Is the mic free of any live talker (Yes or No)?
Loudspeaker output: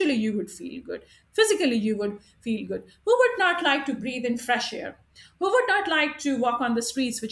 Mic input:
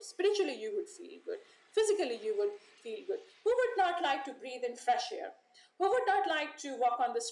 Yes